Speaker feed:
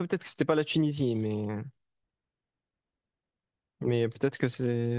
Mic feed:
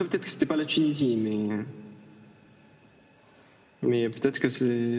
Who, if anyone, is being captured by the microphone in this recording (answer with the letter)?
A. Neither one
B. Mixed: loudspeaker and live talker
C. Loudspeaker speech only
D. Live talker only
C